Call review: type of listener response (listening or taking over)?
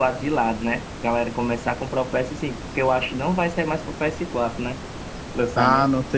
taking over